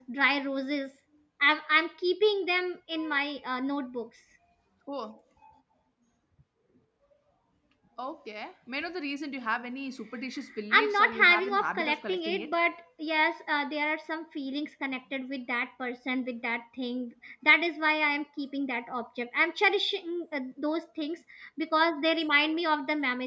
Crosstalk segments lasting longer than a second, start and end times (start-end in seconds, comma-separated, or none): 10.7-12.5